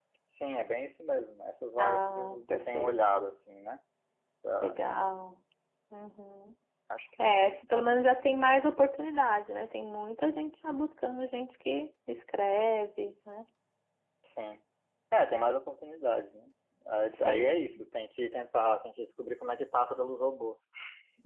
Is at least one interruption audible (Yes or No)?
Yes